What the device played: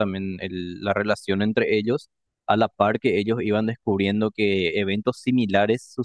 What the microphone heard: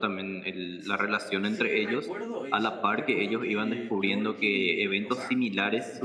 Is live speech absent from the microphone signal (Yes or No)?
No